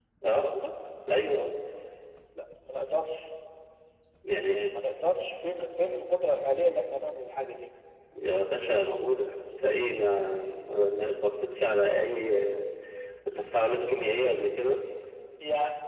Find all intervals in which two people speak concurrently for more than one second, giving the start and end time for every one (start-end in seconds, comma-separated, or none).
none